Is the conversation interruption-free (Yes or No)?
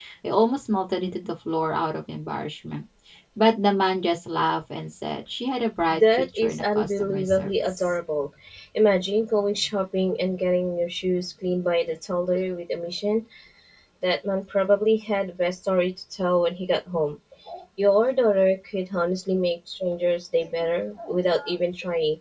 No